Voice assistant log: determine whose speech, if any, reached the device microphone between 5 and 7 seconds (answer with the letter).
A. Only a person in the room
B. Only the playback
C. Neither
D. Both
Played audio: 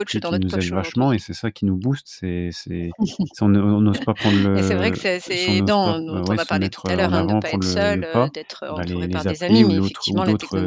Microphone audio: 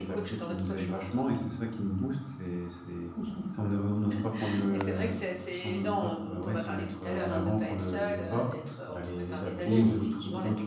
B